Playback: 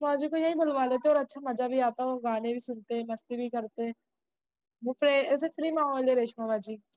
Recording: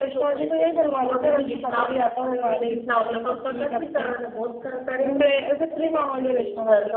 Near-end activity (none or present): present